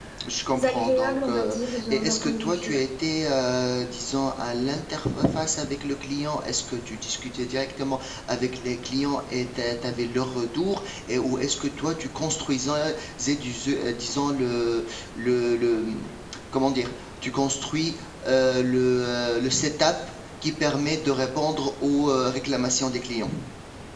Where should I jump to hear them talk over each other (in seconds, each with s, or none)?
0.6 s